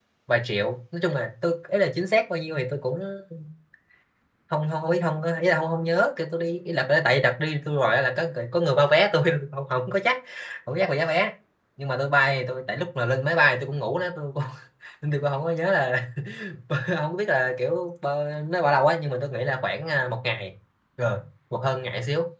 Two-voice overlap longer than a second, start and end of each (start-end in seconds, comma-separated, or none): none